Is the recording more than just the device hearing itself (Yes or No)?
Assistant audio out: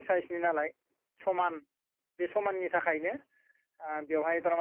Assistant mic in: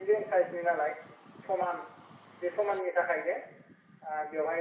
No